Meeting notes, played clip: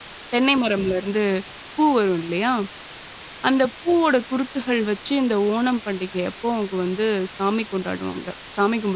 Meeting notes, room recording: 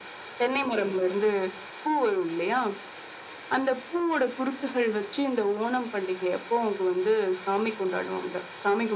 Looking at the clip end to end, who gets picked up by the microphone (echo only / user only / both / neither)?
echo only